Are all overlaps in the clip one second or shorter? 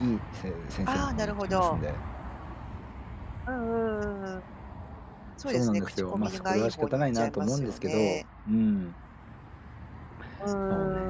No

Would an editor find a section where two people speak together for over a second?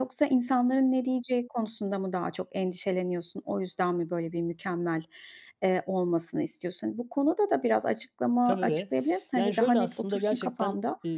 Yes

